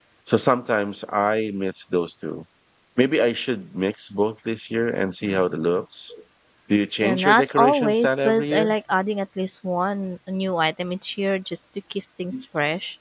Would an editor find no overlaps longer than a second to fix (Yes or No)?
No